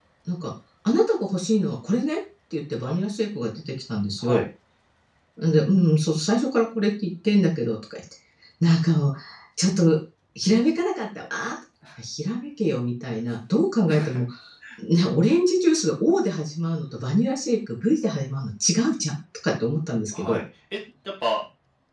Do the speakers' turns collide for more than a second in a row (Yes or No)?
No